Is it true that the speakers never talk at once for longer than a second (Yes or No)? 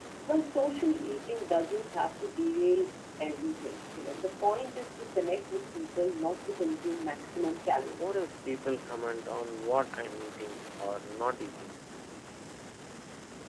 Yes